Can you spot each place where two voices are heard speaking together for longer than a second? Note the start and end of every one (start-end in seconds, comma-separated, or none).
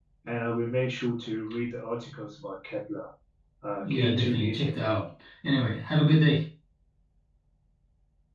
3.8-5.1